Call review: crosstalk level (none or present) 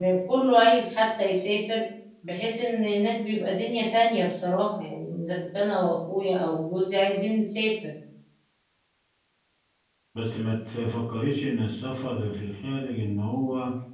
none